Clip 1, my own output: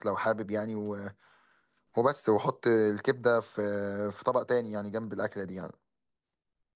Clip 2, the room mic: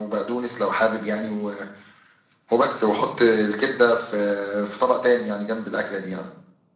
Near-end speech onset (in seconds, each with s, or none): none